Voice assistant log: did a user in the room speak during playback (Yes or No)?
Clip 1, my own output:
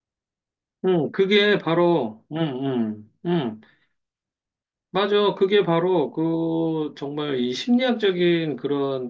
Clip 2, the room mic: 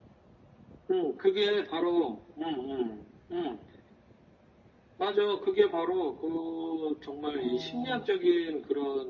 Yes